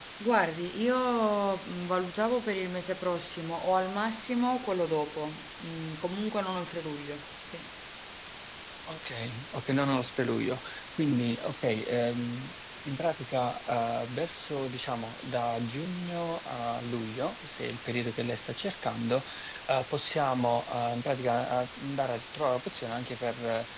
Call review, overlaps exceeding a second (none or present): none